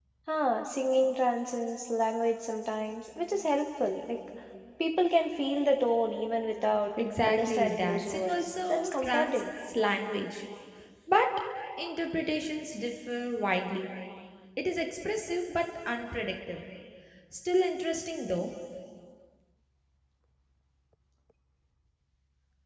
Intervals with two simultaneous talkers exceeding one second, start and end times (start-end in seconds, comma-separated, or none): 7.2-9.5